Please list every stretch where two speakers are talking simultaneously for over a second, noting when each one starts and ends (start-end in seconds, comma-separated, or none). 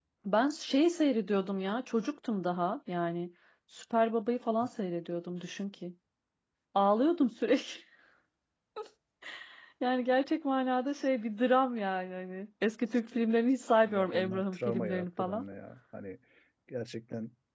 13.8-15.4